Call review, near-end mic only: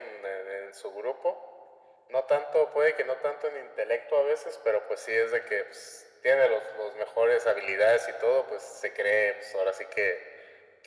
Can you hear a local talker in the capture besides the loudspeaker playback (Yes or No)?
No